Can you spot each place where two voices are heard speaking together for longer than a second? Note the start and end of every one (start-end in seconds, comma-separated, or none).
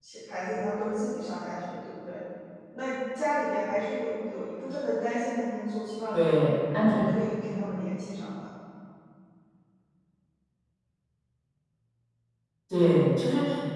none